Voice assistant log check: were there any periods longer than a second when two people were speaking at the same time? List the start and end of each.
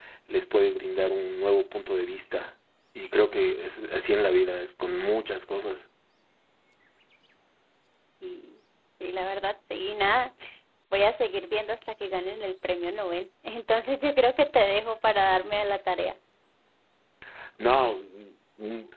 none

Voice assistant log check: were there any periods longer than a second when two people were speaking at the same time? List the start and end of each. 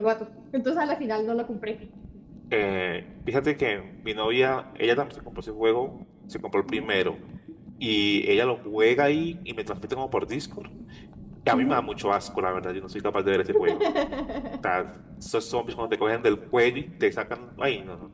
none

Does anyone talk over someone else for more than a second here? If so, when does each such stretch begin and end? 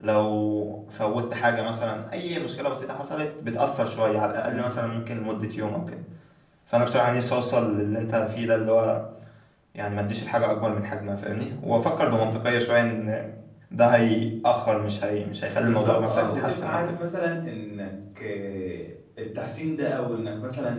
15.6-17.0

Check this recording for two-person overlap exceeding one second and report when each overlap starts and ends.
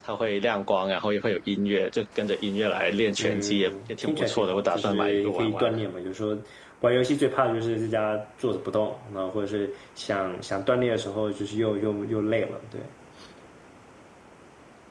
3.2-5.7

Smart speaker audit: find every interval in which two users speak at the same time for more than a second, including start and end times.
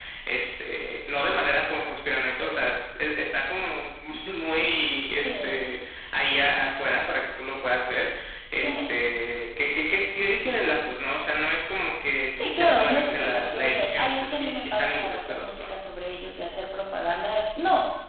12.2-15.7

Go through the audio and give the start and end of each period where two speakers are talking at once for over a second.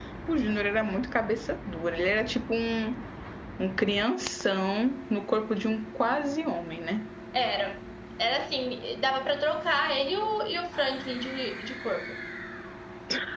none

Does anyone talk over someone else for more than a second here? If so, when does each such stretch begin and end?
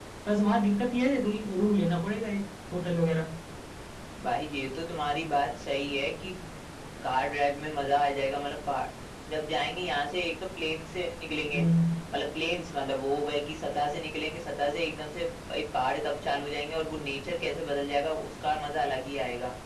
none

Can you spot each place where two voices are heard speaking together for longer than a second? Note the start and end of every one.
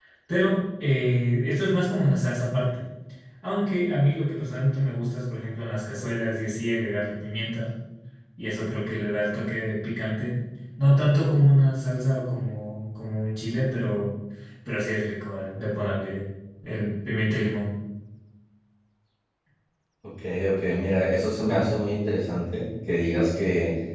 none

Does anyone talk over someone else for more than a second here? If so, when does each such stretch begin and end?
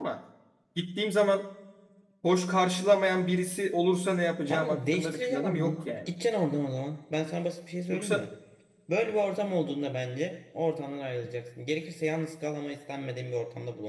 4.5-6.1

